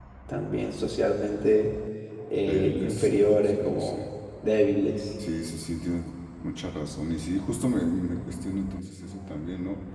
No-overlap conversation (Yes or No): No